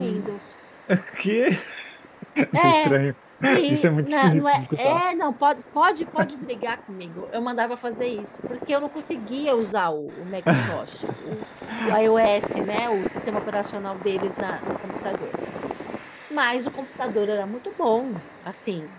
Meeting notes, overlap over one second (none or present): present